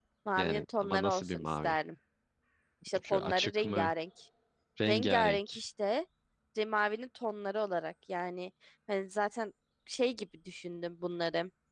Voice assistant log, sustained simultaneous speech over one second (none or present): present